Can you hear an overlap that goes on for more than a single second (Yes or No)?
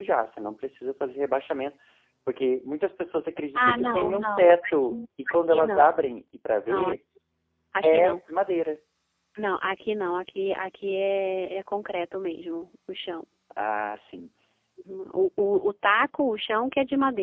Yes